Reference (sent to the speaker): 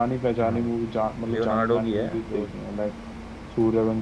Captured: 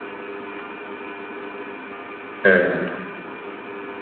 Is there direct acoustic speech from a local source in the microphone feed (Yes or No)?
Yes